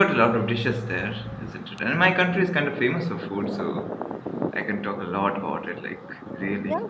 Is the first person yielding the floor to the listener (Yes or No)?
Yes